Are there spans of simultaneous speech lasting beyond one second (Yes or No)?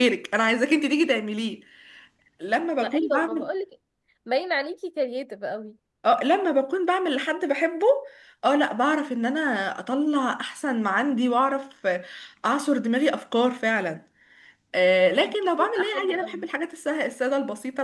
Yes